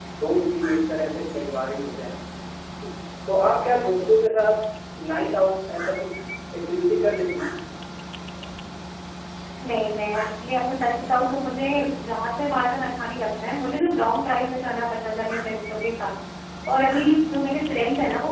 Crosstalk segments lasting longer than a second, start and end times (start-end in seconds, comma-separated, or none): none